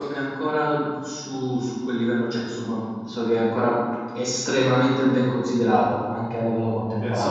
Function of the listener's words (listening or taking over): taking over